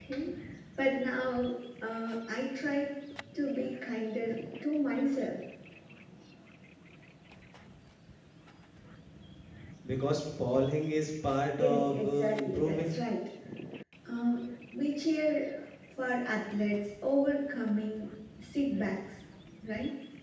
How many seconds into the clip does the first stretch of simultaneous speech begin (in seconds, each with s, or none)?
11.6 s